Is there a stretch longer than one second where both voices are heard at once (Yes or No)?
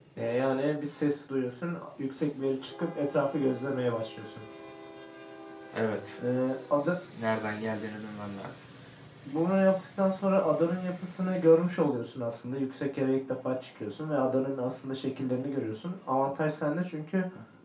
No